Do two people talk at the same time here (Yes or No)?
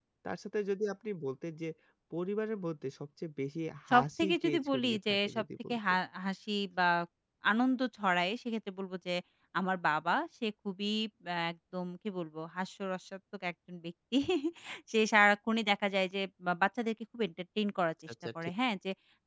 Yes